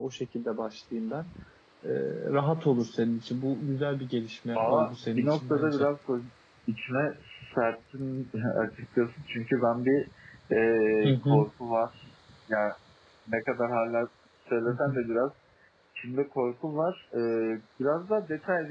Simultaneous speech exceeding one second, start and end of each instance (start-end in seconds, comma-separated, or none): 4.5-5.9